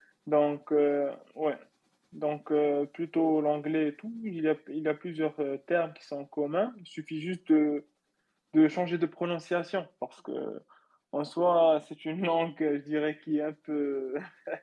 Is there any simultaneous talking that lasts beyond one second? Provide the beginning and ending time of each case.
none

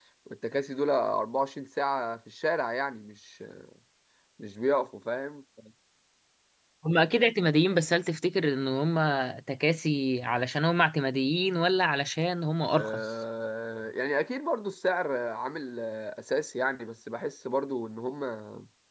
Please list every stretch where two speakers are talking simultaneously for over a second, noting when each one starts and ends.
none

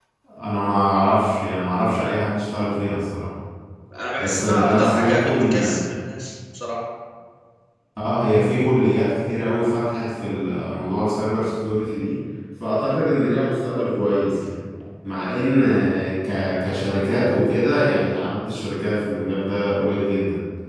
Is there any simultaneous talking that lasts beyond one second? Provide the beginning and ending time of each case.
4.2-5.9

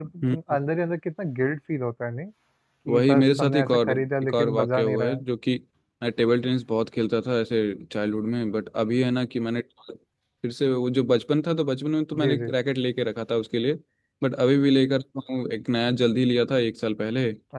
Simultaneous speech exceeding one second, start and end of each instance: 2.9-5.2

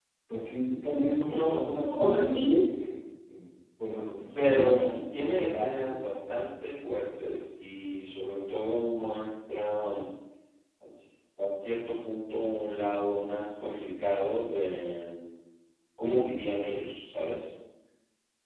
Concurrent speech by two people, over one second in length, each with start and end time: 1.0-2.6, 4.3-6.0

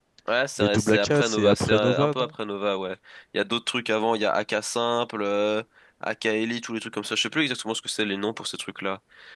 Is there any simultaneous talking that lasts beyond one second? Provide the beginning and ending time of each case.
0.6-2.3

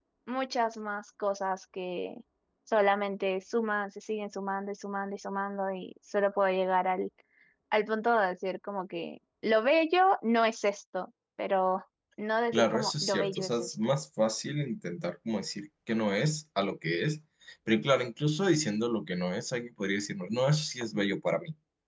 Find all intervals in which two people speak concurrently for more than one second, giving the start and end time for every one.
12.5-13.8

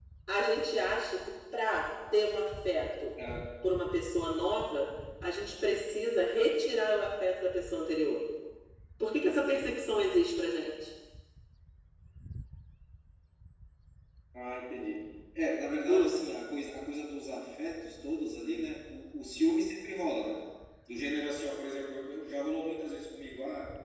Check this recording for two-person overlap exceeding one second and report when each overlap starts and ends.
none

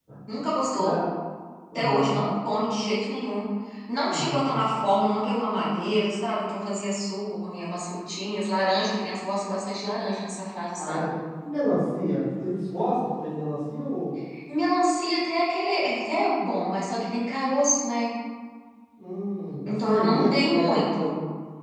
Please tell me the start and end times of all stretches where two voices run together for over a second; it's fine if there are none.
19.7-21.1

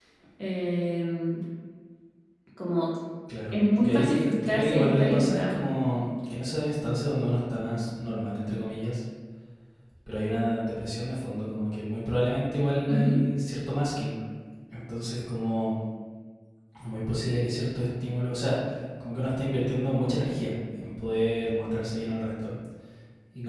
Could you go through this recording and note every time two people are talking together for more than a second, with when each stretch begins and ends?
3.5-5.6

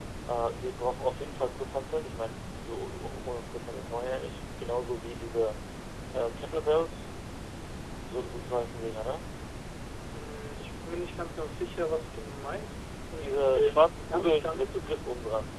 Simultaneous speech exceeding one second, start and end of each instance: 13.2-14.8

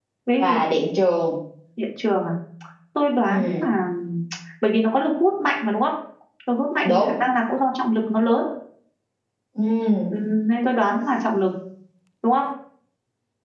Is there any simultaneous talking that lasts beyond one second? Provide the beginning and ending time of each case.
none

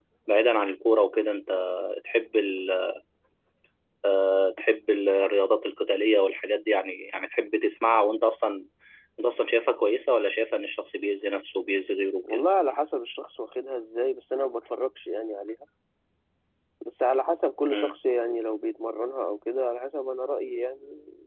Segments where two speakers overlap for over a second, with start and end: none

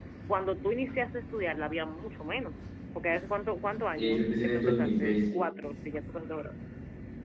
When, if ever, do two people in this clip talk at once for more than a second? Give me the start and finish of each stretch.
4.0-5.4

